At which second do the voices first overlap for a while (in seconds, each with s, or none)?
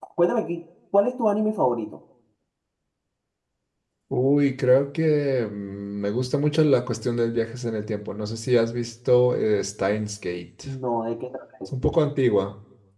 none